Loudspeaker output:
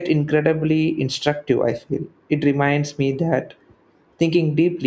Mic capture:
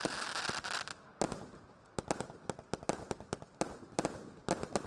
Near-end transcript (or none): none